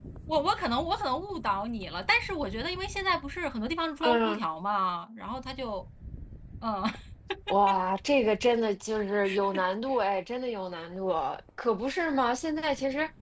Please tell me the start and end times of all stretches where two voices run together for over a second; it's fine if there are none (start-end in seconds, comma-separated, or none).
none